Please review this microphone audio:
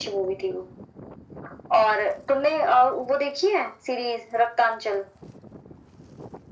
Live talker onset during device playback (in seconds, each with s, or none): none